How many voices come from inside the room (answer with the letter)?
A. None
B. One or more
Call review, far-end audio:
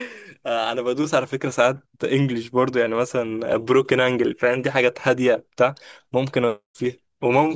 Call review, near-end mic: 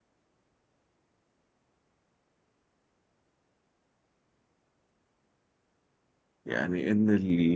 B